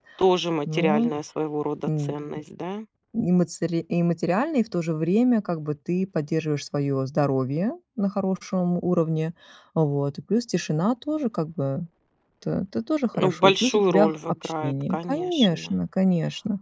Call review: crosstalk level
present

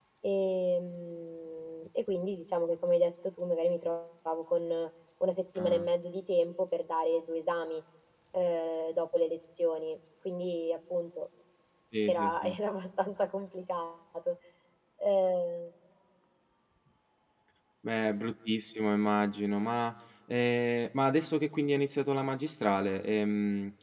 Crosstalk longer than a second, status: none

